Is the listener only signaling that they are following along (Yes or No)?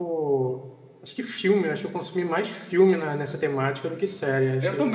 No